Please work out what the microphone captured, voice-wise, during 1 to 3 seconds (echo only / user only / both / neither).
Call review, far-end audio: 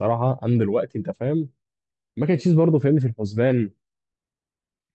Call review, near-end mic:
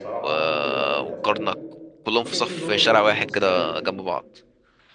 both